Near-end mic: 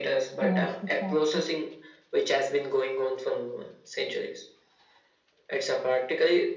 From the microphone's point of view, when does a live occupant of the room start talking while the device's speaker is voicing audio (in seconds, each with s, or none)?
0.4 s